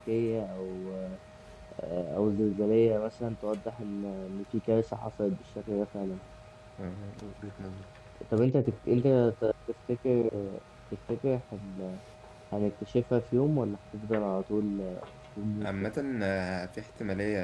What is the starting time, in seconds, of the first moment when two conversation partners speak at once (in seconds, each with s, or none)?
none